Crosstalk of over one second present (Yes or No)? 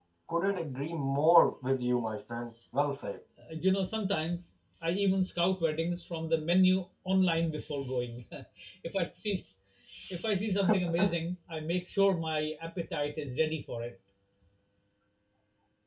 No